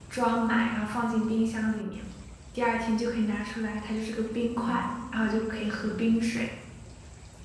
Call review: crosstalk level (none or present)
present